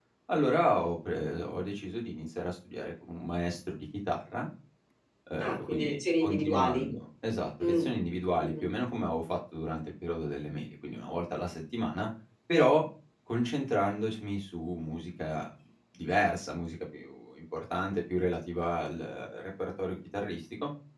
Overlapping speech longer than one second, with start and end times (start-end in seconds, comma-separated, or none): 5.4-6.9